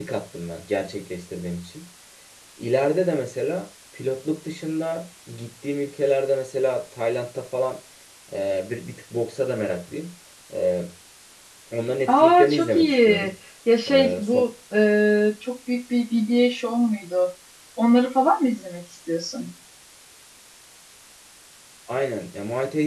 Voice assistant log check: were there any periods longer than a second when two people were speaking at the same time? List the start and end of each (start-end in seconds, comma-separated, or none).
12.1-13.3